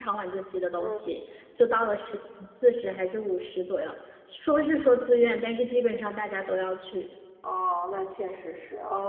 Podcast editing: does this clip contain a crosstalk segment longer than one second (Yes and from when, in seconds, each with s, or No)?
No